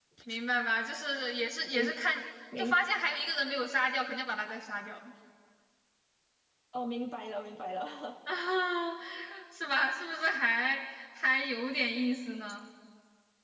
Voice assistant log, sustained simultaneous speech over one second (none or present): none